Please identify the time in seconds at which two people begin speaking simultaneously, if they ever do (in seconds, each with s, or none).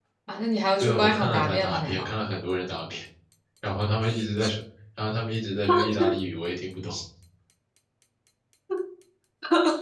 0.8 s